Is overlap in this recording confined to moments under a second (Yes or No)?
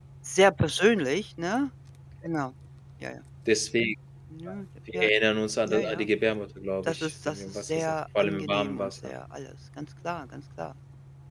No